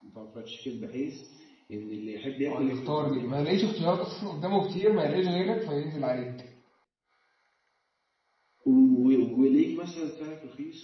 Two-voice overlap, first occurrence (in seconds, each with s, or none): 2.5 s